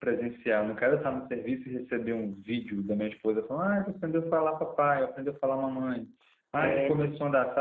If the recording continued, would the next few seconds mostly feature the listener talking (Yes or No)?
No